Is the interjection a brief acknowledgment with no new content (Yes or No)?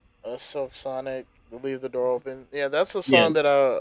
Yes